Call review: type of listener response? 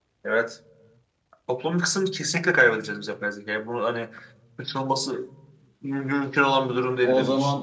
taking over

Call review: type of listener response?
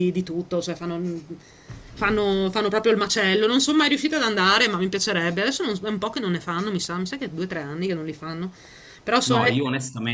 taking over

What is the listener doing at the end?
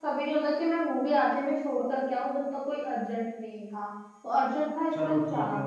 taking over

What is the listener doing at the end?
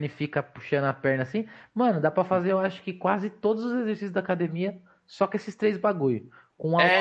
listening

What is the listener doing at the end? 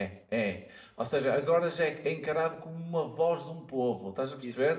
listening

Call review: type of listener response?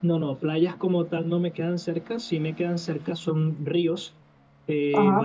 listening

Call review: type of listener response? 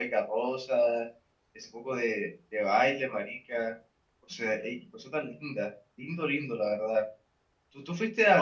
listening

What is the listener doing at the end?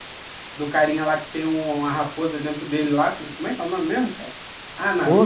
taking over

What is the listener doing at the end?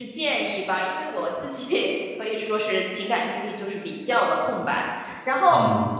listening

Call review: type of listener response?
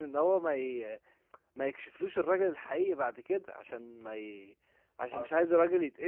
listening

